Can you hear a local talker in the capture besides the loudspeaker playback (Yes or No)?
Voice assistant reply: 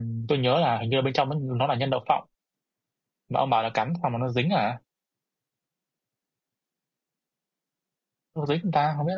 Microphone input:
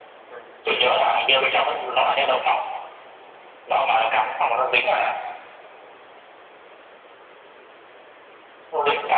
No